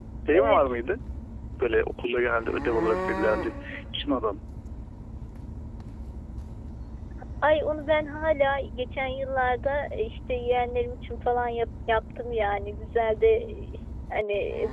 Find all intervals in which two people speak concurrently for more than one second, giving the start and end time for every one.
none

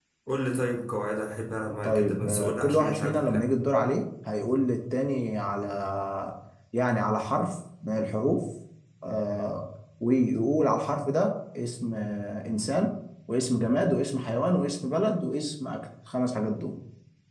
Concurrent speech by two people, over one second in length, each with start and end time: 1.8-3.5

